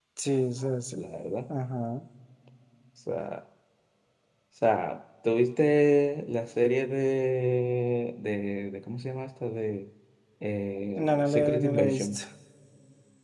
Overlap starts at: 11 s

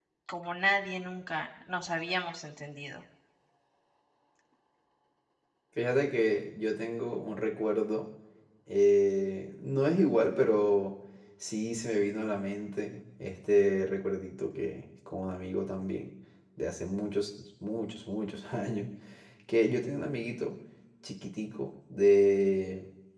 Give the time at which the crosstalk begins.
none

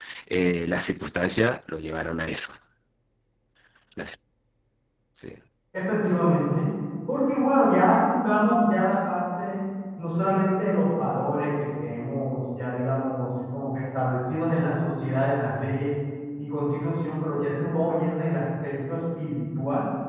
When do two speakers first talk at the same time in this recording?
none

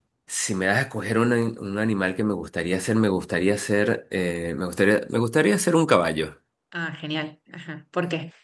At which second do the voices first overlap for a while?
none

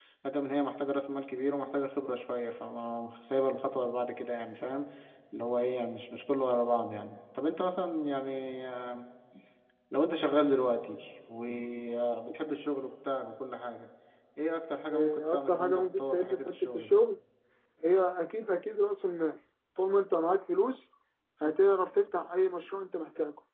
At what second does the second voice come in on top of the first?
15 s

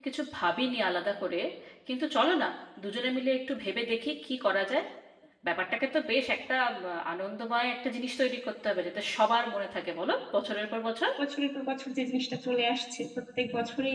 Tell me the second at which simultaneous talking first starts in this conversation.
none

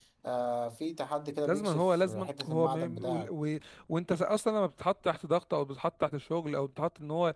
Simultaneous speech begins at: 1 s

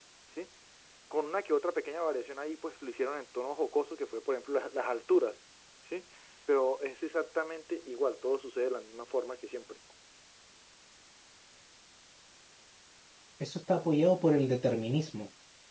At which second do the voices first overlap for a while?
none

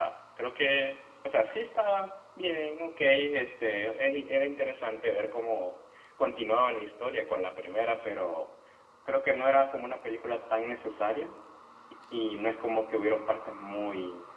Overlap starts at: none

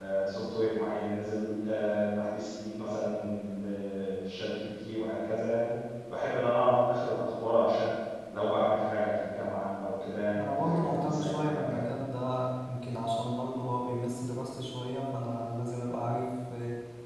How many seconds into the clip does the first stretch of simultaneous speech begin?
10 s

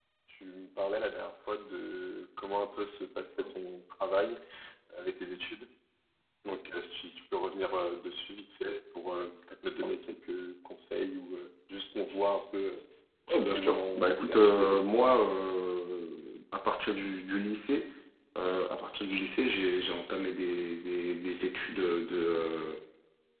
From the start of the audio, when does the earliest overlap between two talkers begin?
14 s

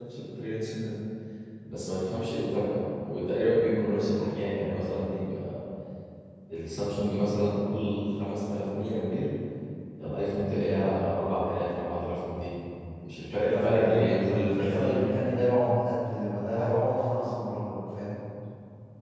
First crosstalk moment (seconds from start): 13 s

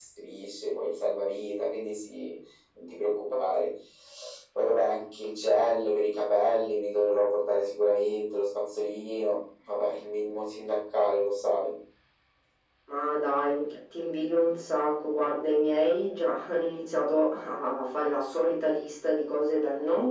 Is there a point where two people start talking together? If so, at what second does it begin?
none

